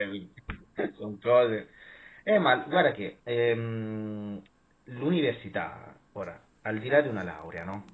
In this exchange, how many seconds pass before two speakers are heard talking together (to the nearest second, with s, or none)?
none